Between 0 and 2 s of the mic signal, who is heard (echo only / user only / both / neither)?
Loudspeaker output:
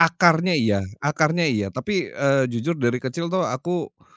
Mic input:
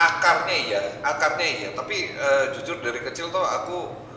echo only